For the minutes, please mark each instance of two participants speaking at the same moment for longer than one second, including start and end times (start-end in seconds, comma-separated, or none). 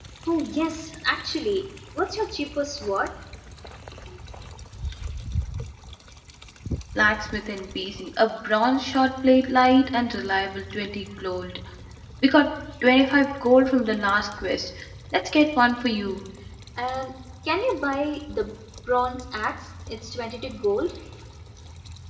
none